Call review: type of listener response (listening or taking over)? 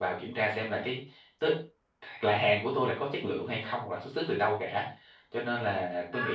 listening